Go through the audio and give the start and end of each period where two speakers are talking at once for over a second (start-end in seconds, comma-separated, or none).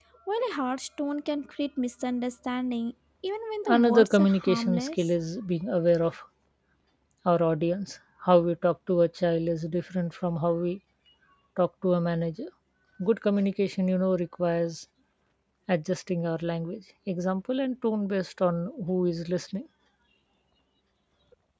3.6-5.1